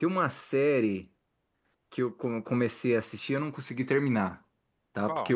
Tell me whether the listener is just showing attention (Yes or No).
Yes